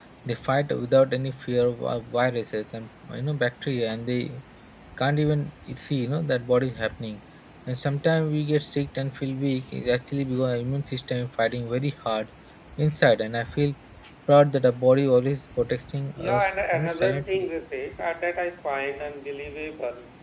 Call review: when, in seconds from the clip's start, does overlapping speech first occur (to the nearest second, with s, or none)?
16 s